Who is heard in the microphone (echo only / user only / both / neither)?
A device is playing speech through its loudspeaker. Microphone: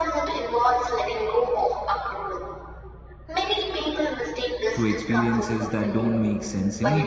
both